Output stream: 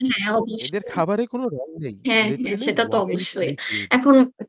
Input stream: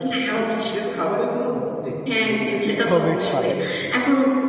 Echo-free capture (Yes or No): No